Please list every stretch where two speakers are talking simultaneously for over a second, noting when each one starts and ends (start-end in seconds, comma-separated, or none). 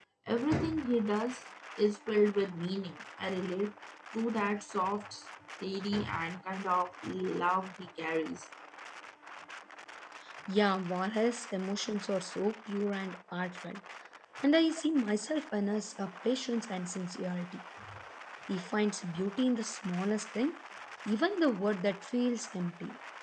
none